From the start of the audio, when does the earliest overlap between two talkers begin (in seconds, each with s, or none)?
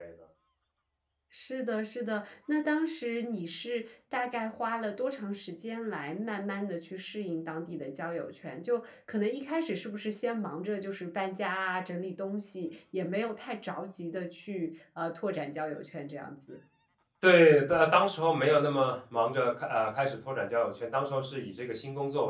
none